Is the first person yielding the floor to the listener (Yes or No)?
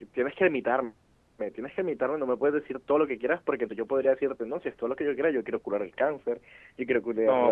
Yes